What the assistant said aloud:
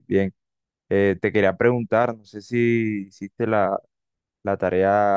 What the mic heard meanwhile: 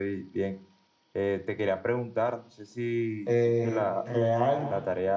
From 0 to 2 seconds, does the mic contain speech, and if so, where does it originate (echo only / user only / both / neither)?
echo only